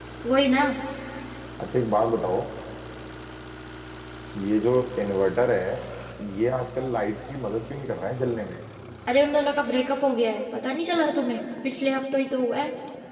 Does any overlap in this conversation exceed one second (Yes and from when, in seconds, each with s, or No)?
No